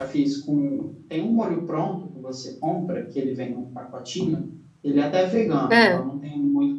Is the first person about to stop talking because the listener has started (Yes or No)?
No